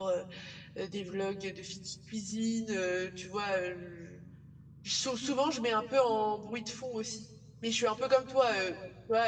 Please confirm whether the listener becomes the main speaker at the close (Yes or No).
No